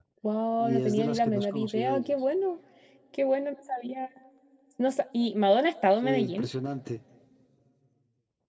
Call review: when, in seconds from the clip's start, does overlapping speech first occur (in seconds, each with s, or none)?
0.6 s